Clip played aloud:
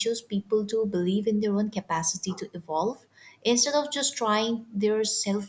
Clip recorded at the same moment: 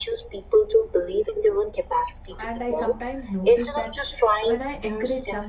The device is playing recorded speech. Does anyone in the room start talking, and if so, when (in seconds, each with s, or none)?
2.4 s